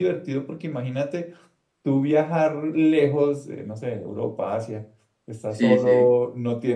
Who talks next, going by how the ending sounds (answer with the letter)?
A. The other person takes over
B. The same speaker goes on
B